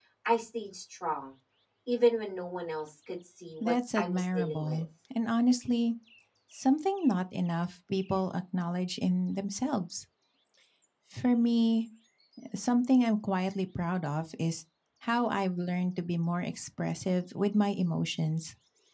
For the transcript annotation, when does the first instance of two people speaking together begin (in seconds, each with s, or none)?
3.6 s